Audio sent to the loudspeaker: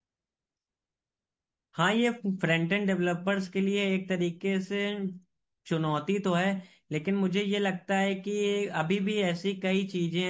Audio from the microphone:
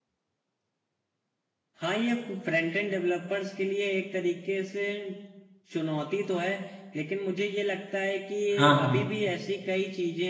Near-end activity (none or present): present